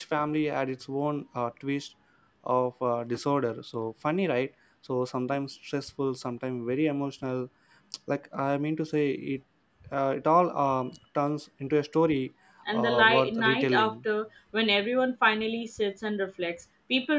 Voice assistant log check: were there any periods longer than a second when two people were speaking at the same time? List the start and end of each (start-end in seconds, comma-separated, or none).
12.7-13.9